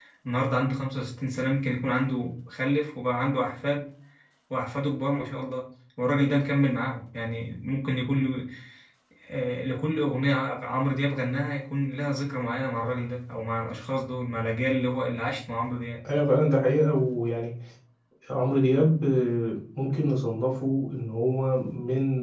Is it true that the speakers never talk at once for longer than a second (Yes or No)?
Yes